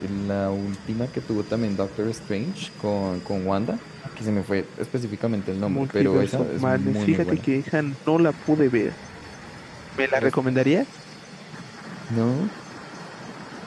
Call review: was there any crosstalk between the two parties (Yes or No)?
Yes